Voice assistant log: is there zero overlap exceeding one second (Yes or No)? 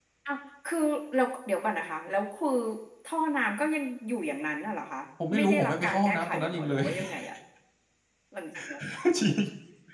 No